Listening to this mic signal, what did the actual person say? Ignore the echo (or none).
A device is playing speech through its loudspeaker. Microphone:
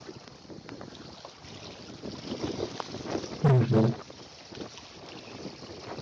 Mhm,